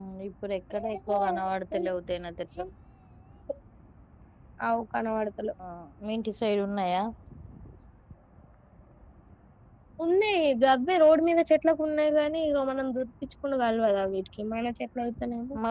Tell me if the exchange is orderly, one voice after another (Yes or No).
Yes